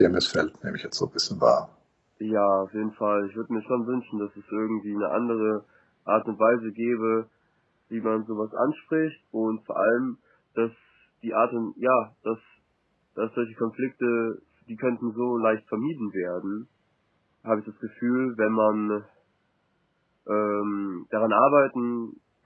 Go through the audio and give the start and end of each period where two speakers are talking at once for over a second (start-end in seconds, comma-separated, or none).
none